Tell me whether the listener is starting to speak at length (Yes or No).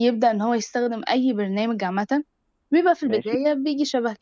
No